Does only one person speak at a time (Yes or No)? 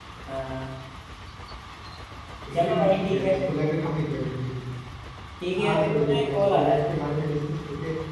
No